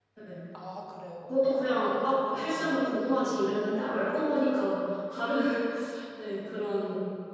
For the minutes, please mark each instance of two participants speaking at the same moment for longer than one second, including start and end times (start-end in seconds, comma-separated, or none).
1.4-2.8